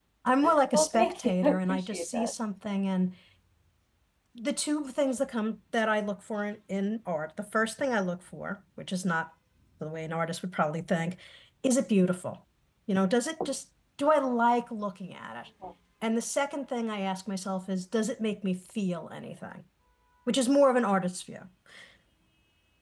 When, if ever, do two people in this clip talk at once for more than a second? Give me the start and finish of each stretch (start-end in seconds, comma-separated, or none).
0.7-2.3